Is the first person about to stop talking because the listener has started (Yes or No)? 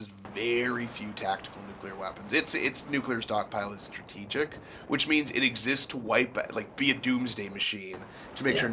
No